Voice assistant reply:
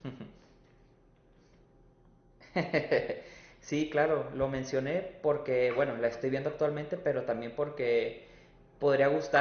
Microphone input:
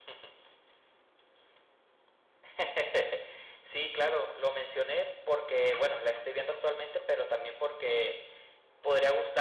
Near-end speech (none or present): none